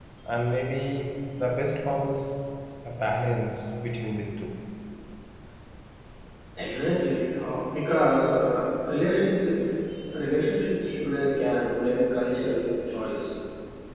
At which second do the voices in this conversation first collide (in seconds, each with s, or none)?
none